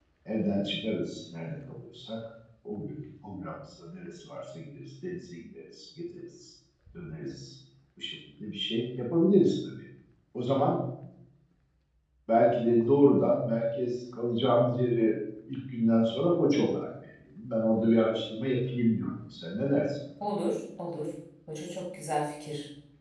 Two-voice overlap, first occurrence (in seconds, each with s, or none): none